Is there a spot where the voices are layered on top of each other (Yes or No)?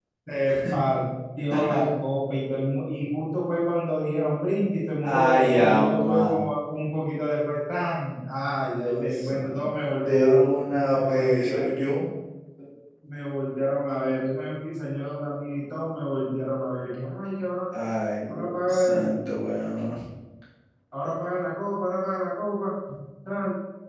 Yes